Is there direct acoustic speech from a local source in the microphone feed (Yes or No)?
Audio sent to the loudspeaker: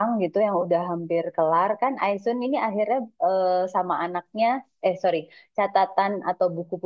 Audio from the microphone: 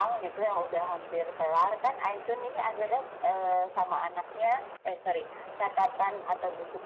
No